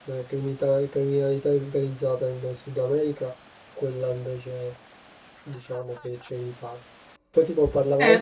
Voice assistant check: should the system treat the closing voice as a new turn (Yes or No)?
Yes